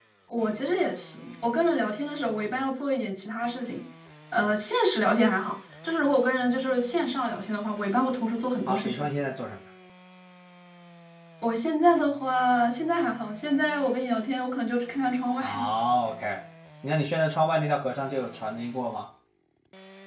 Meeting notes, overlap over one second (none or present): none